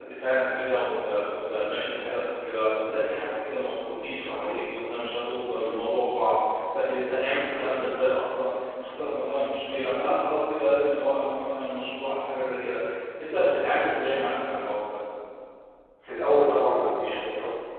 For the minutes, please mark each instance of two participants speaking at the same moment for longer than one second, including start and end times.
none

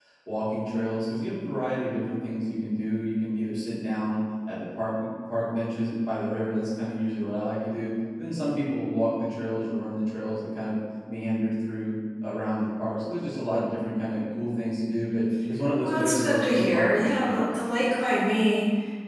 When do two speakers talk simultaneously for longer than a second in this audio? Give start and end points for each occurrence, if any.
15.8-17.9

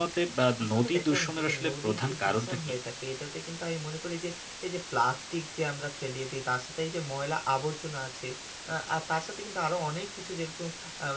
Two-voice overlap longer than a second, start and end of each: 0.6-2.6

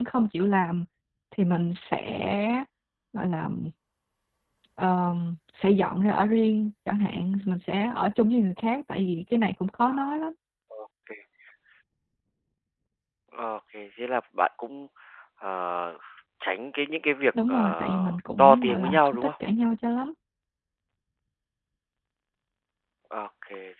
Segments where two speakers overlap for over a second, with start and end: 17.5-19.3

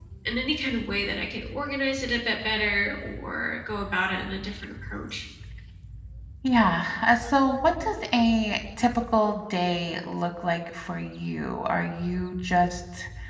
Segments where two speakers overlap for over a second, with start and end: none

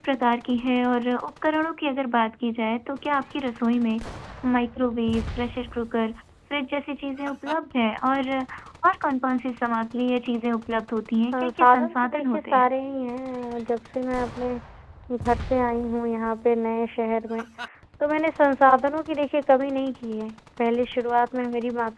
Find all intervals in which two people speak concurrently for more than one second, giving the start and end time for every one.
11.3-12.7

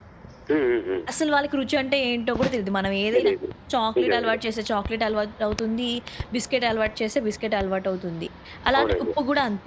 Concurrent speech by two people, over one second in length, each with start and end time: none

